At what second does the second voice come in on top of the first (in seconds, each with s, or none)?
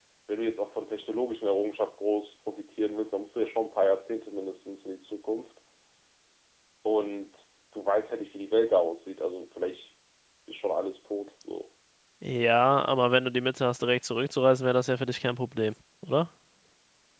none